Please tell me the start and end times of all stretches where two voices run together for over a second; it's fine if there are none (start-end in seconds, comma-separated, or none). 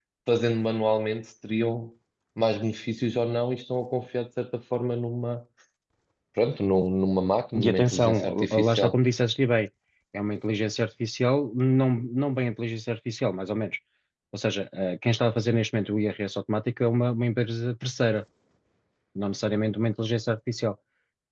7.6-9.0